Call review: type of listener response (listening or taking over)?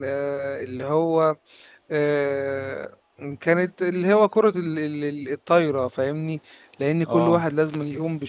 listening